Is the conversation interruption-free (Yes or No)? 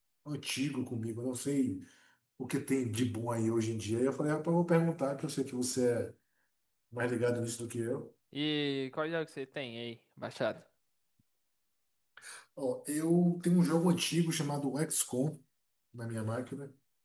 Yes